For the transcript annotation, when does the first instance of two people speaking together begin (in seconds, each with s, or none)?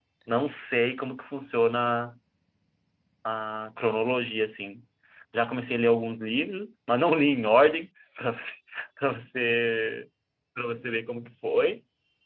none